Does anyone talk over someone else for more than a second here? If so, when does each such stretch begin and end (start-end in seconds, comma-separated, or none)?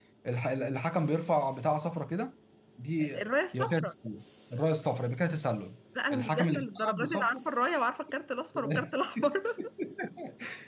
6.1-7.4